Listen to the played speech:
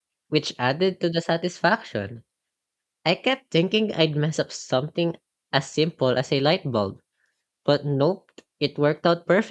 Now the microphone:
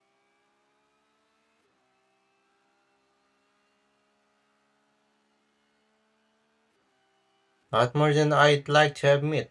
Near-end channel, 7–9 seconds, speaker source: user only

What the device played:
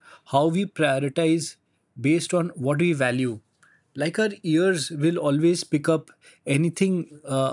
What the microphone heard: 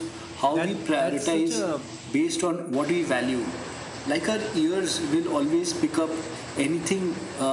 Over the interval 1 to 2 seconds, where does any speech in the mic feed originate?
both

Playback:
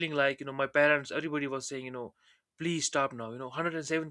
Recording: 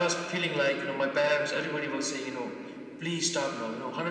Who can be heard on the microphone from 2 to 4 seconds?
echo only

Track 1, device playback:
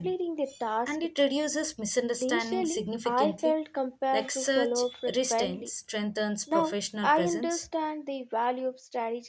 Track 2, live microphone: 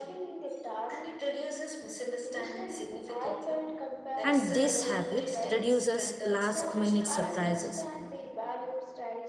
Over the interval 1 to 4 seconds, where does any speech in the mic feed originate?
echo only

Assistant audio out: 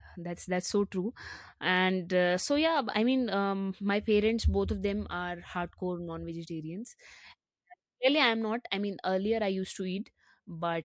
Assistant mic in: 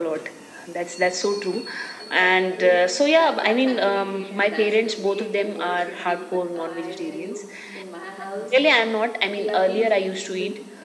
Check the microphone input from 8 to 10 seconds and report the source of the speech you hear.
both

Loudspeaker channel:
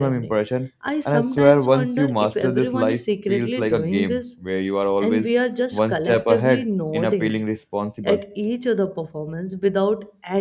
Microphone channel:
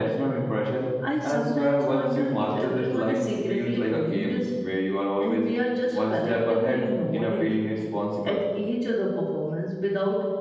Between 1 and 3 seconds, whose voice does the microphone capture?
echo only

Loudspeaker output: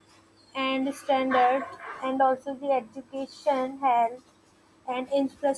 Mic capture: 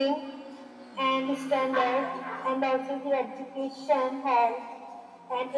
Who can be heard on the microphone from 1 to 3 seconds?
echo only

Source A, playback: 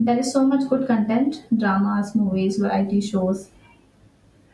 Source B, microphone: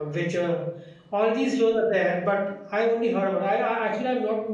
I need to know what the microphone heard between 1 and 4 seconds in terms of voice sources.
user only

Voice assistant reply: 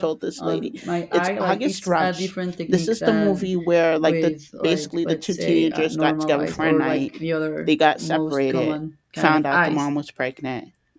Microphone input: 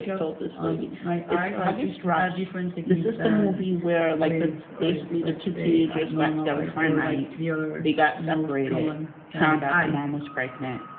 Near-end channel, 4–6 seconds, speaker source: echo only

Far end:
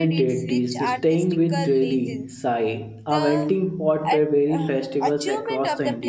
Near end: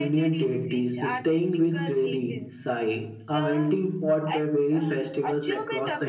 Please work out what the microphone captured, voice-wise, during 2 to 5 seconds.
echo only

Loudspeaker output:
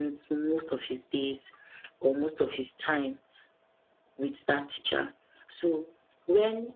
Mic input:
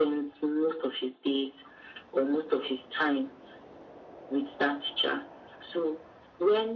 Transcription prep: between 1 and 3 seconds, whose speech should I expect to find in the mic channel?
echo only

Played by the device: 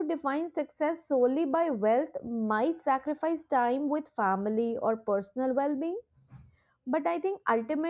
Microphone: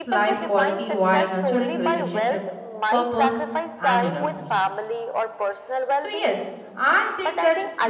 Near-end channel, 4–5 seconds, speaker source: both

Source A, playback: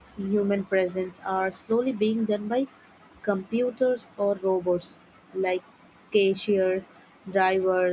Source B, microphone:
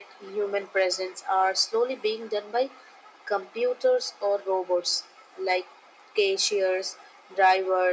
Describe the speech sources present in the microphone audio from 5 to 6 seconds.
echo only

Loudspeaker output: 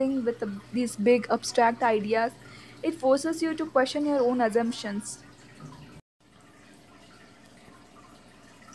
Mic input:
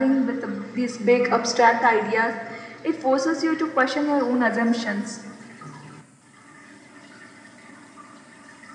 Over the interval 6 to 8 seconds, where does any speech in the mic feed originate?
neither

